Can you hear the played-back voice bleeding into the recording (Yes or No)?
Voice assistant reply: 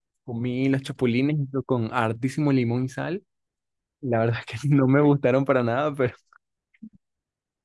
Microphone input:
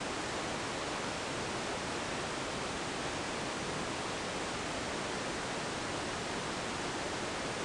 No